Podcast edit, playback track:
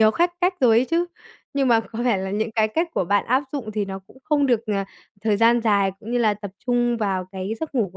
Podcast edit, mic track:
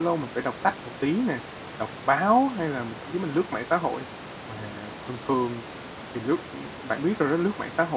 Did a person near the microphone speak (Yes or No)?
Yes